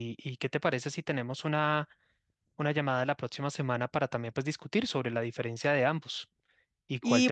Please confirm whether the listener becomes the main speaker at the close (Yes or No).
Yes